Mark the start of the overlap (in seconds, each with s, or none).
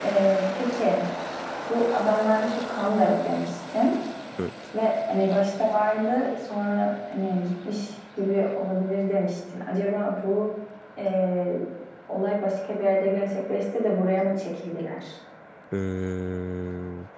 none